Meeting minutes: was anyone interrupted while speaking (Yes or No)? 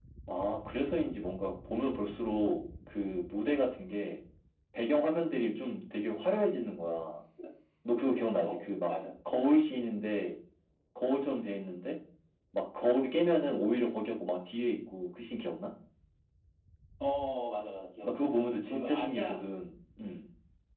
Yes